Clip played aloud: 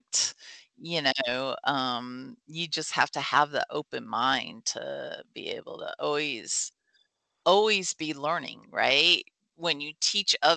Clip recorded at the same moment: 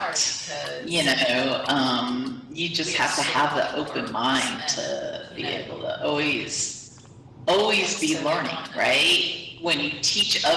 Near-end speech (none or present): present